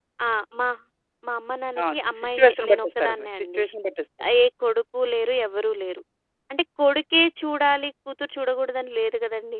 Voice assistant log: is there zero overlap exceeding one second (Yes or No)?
No